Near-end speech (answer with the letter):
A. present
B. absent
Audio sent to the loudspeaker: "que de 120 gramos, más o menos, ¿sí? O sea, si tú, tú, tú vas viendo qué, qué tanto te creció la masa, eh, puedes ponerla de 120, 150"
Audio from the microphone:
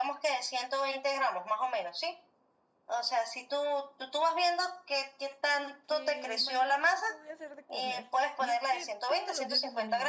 A